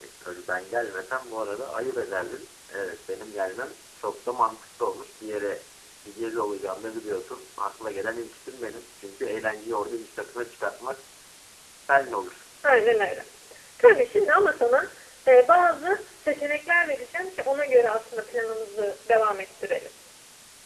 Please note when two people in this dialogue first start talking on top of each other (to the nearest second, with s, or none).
none